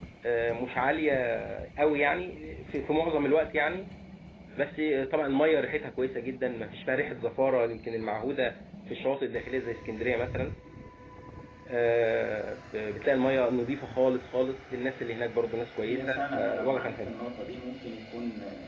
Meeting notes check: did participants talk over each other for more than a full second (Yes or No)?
Yes